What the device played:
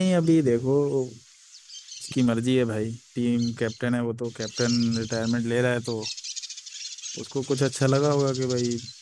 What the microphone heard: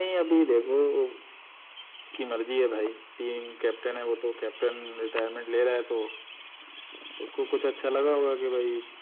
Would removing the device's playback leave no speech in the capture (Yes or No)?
Yes